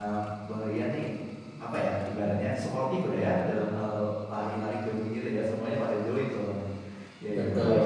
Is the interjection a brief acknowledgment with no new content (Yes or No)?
Yes